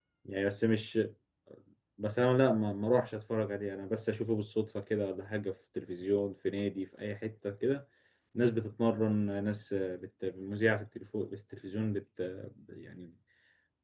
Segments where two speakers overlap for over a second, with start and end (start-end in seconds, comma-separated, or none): none